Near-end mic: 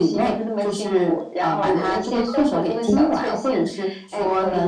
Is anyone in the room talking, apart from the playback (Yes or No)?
Yes